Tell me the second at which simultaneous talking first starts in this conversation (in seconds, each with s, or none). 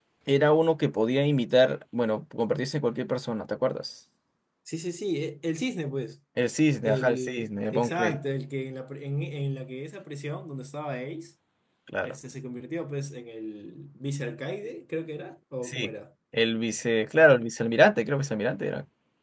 6.8 s